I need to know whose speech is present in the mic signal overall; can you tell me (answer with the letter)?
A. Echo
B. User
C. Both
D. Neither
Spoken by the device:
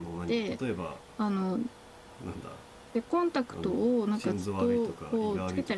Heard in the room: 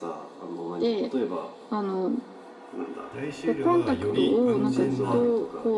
C